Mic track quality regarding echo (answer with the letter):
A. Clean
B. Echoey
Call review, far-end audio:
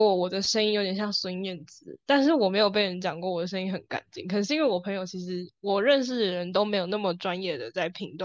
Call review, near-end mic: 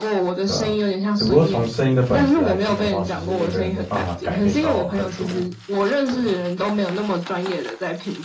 B